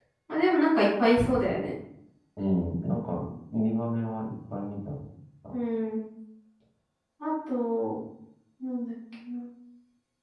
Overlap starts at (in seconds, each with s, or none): none